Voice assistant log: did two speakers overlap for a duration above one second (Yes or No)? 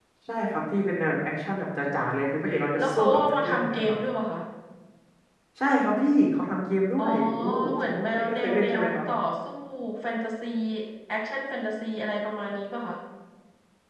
Yes